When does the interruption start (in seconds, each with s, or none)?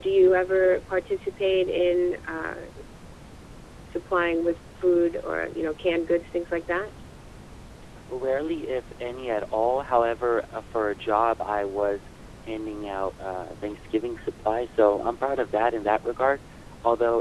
none